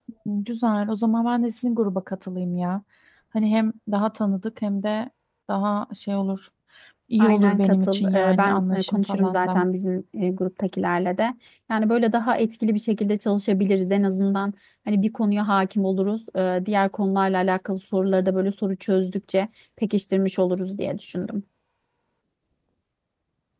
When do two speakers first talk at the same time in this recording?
7.2 s

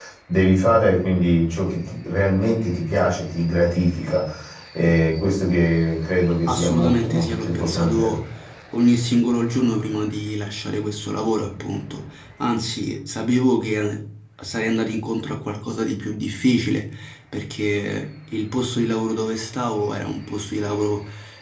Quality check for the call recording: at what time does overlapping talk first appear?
6.5 s

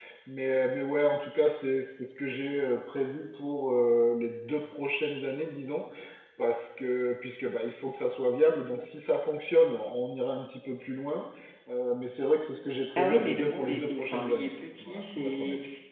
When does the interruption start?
13.0 s

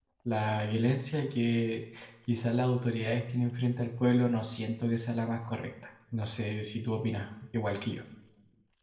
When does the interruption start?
none

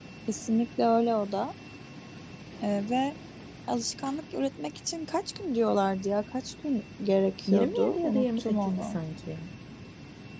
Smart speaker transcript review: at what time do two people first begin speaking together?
7.5 s

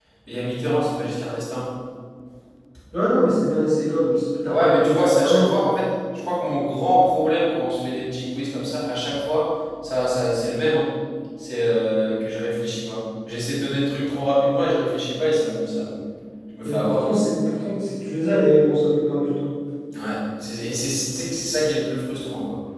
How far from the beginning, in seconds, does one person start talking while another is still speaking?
4.5 s

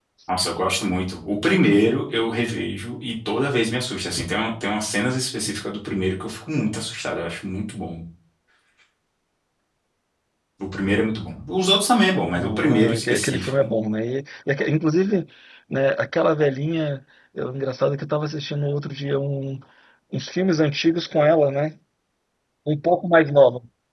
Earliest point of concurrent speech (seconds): 12.3 s

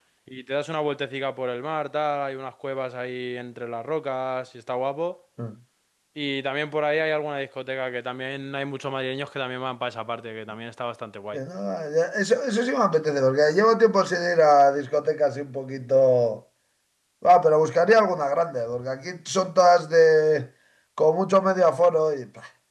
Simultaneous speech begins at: none

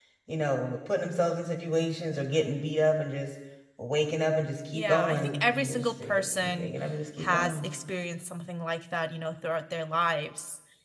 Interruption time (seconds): 4.7 s

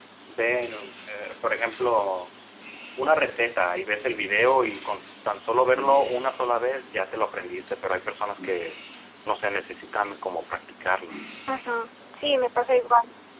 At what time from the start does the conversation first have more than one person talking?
none

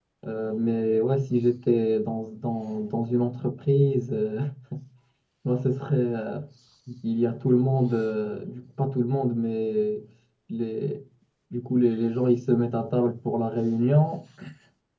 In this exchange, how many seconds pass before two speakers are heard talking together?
none

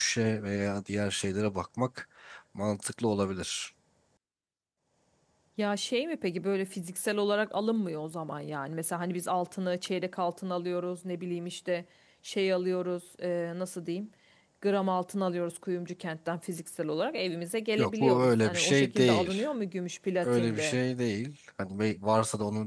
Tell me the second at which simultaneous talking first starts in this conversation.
17.8 s

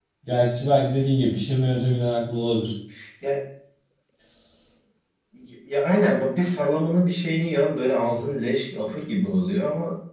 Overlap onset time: none

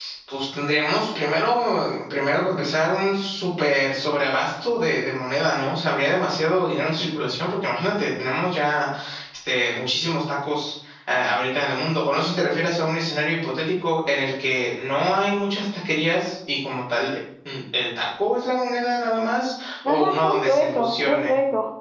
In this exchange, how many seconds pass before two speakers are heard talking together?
19.9 s

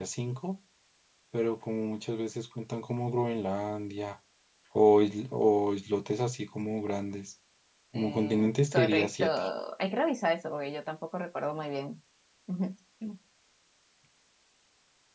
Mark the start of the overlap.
7.9 s

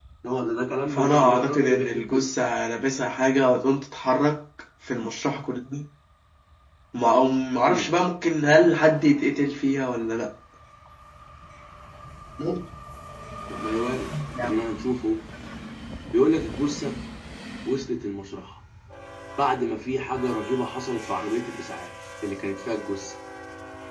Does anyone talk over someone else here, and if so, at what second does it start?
0.9 s

